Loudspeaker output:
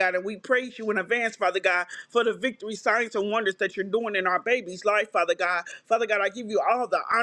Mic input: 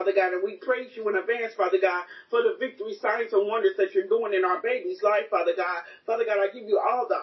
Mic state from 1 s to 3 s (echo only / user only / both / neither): echo only